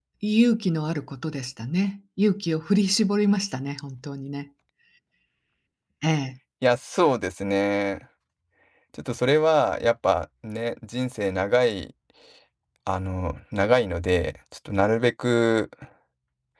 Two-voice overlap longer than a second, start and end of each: none

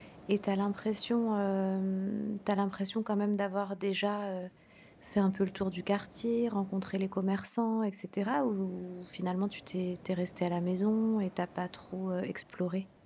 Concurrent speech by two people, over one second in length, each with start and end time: none

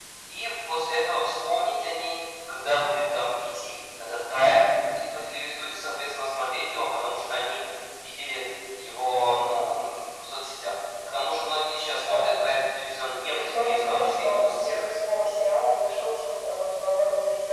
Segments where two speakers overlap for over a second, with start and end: 13.4-15.0

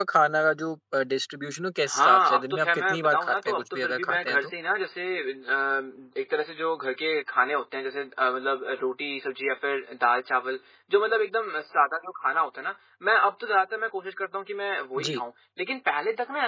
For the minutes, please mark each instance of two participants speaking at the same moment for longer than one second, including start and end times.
1.9-4.5

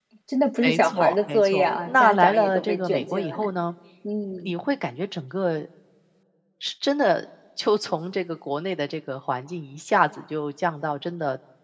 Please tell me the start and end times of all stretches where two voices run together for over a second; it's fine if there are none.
0.6-3.4

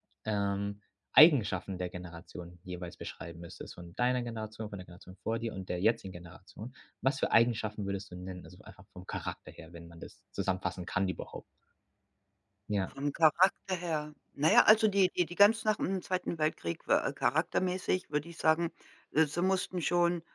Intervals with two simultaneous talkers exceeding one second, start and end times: none

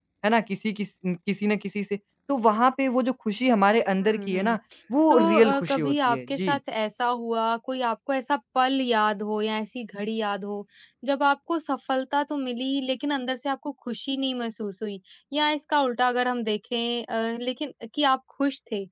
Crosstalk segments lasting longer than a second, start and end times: 5.1-6.6

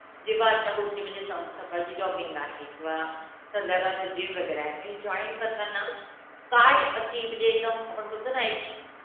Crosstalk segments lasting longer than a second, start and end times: none

